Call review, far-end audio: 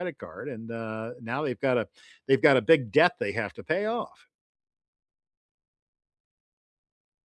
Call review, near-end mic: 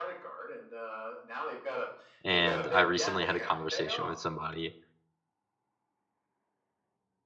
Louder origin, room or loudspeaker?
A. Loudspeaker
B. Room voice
B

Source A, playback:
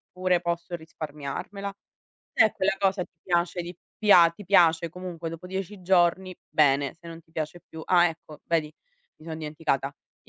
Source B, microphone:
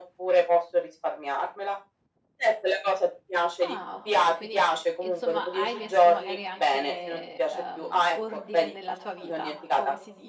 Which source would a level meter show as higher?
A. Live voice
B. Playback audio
B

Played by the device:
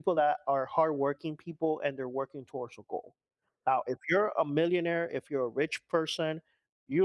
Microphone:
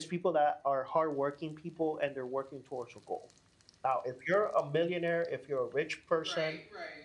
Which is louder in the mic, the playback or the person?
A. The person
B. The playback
B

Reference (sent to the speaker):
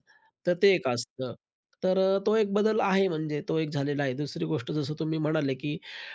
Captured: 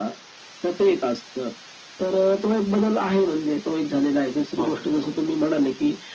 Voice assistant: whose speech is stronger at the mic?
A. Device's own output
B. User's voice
A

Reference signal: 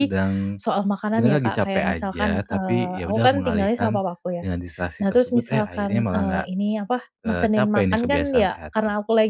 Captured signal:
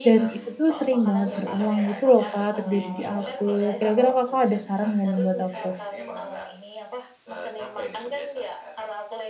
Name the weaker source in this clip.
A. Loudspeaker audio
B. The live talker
A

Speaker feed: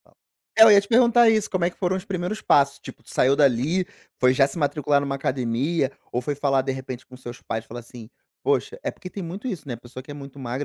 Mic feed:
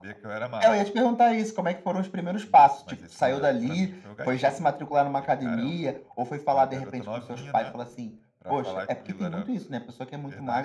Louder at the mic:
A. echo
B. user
A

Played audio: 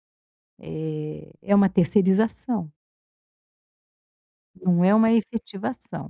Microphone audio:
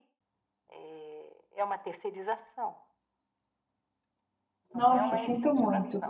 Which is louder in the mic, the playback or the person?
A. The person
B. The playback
A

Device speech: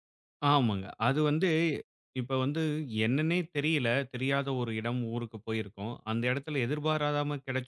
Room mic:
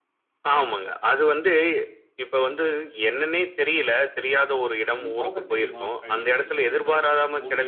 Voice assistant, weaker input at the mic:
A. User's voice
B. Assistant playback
A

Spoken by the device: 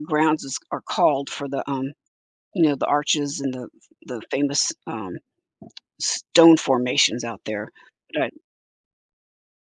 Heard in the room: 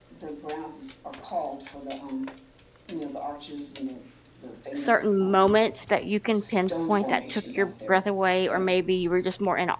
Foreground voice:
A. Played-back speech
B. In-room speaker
B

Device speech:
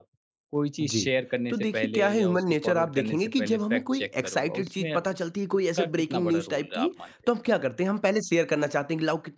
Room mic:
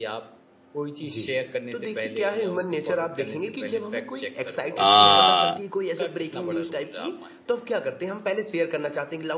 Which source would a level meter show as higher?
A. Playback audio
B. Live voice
B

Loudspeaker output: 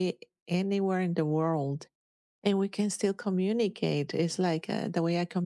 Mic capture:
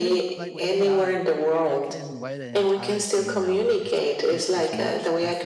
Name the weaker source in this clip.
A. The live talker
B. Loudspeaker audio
A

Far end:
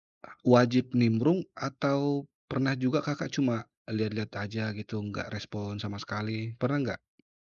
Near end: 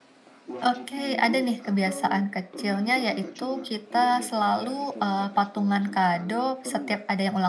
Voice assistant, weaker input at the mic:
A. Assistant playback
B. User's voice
A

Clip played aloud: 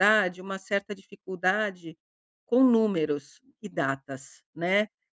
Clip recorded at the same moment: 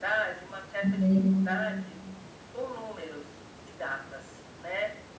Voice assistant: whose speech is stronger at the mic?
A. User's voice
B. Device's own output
A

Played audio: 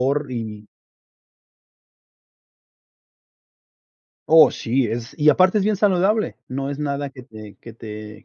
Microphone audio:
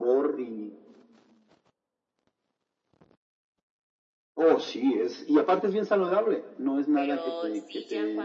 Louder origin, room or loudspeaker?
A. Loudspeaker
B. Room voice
A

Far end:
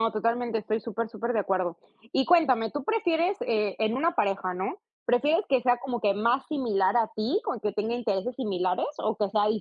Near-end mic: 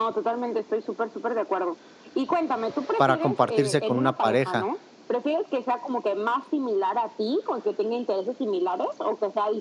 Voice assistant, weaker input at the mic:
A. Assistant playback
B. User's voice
A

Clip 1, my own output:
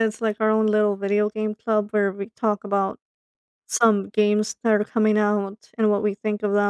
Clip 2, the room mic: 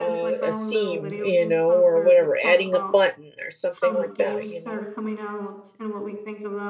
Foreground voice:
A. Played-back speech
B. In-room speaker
B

